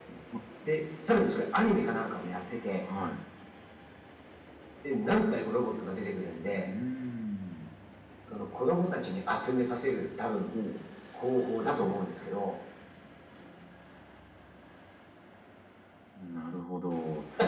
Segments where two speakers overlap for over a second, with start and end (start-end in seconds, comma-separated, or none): none